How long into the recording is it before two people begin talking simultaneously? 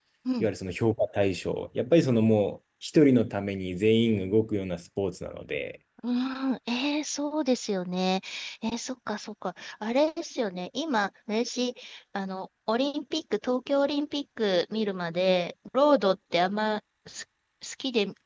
none

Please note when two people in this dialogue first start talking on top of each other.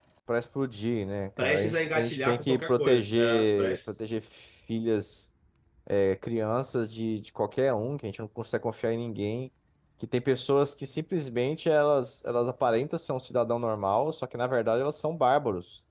1.4 s

